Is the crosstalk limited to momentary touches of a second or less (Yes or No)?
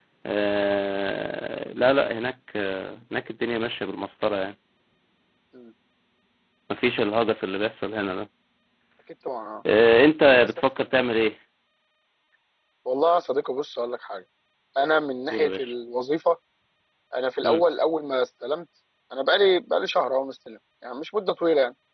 Yes